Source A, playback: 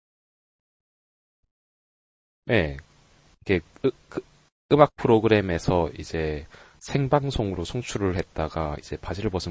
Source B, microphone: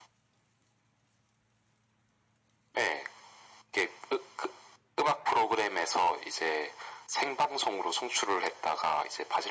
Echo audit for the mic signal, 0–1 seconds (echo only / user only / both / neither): neither